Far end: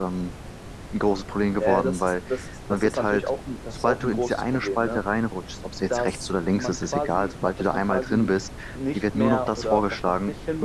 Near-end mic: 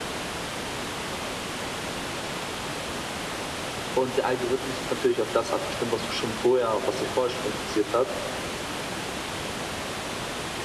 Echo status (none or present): none